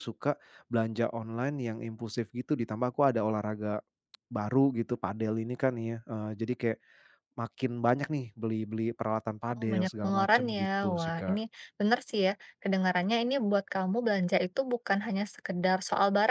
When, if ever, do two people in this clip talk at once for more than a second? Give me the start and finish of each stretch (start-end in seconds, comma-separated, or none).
9.6-11.4